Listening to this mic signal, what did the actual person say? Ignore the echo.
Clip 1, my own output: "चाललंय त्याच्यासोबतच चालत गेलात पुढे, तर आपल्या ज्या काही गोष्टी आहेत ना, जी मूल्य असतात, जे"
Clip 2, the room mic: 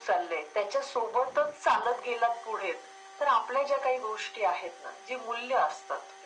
none

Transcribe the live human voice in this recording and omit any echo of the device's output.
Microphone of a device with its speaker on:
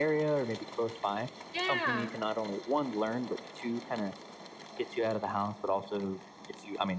Yeah,

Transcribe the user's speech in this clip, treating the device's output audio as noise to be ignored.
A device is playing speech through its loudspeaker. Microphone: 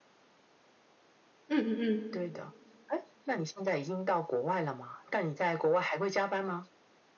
嗯嗯嗯，

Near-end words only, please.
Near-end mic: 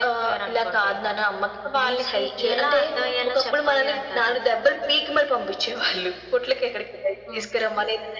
none

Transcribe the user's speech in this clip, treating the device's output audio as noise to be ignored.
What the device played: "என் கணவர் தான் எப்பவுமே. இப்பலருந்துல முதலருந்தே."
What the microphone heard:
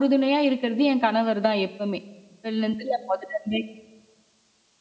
none

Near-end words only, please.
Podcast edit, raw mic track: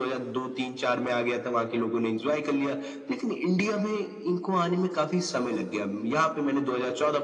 none

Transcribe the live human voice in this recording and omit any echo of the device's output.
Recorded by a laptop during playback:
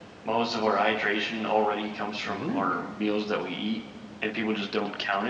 Really?

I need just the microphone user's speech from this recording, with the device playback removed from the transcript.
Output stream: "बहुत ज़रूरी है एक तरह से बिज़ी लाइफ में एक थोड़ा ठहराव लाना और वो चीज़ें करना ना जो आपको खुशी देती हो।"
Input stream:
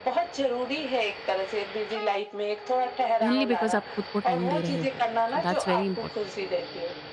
ओनली बिकॉज़ आप खुद को टाइम दे रहे हो। सो दैट्स वेरी इंपॉर्टेंट।

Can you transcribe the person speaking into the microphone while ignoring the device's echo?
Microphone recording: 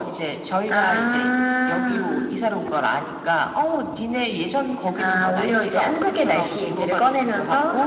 none

